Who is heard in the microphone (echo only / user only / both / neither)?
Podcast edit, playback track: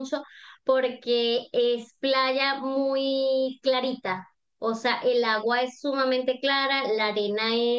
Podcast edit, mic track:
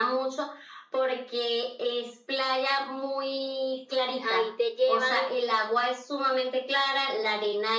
both